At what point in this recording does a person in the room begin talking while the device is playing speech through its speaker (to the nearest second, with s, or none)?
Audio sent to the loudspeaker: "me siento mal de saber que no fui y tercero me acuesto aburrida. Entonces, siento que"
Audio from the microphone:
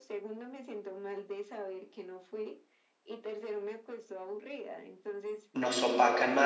6 s